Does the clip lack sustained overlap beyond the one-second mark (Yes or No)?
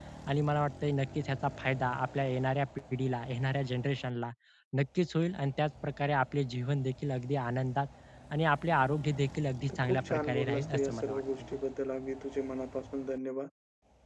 No